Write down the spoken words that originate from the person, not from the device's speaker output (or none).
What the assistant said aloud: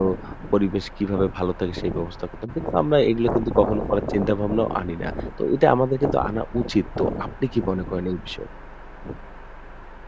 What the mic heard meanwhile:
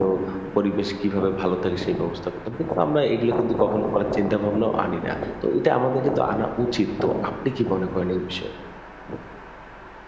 none